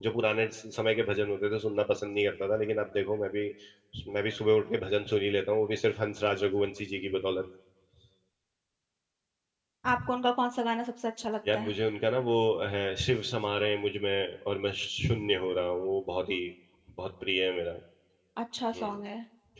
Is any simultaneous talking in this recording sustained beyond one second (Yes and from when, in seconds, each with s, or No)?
No